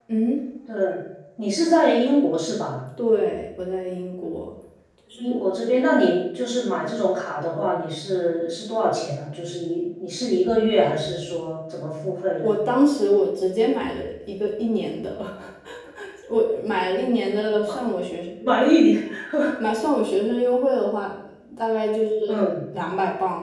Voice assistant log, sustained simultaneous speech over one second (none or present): none